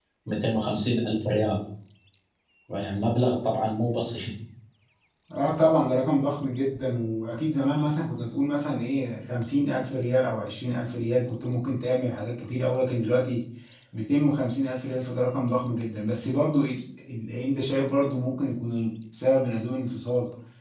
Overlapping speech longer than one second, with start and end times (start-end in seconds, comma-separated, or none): none